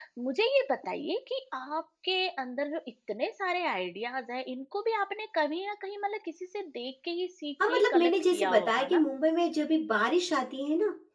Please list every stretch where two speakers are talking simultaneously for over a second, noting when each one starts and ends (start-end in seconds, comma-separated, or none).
7.7-9.0